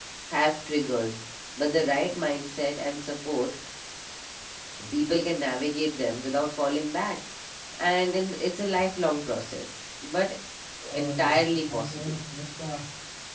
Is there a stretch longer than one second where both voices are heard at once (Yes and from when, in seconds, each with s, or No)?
Yes, from 11.0 s